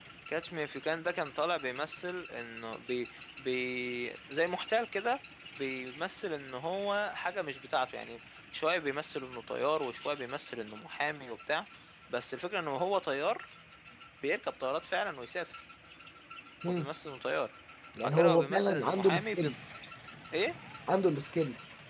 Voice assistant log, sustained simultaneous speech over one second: present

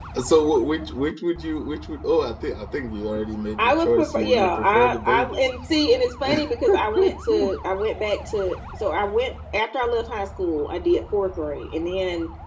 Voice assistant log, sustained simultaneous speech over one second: present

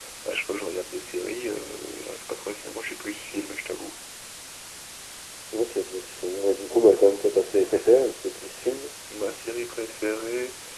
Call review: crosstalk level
none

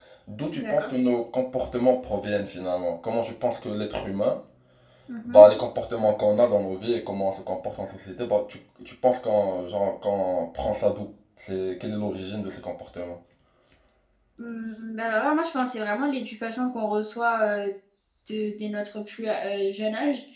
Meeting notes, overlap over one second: none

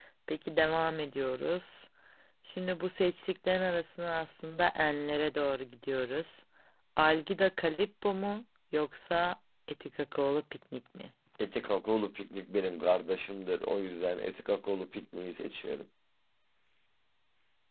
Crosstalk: none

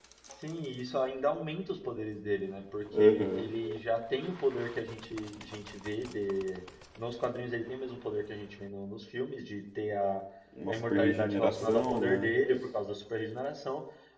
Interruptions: present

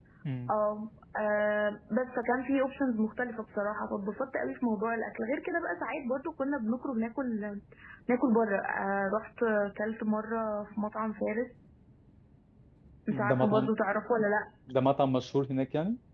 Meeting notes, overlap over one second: none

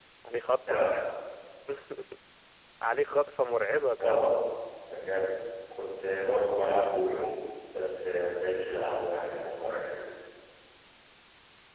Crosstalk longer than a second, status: none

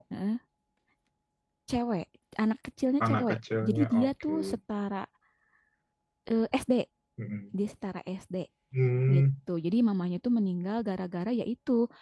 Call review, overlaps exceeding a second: present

